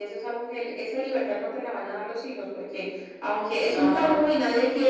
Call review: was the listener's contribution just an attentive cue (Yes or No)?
Yes